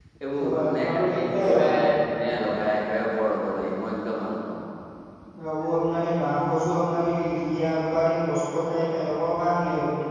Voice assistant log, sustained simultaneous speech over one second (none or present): present